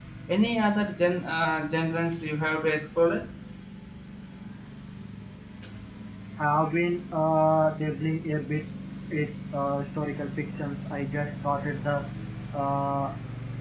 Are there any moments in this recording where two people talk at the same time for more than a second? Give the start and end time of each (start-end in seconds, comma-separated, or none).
none